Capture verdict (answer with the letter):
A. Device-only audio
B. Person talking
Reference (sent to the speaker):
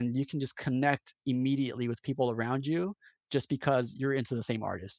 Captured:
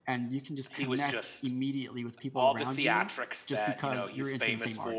B